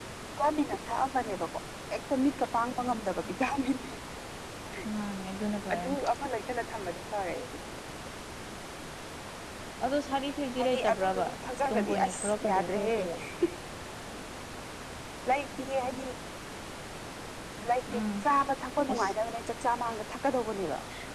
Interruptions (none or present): present